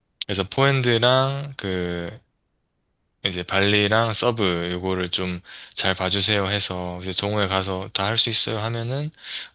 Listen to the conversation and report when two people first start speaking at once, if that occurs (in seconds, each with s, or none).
none